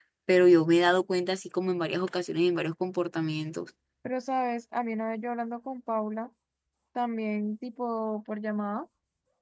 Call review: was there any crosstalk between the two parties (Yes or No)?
No